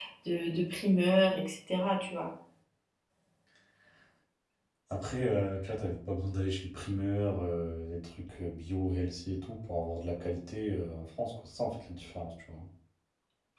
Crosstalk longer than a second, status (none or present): none